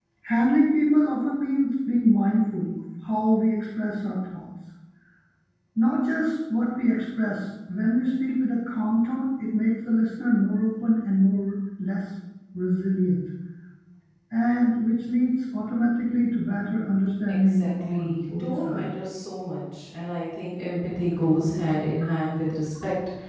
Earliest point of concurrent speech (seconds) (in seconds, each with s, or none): 17.5 s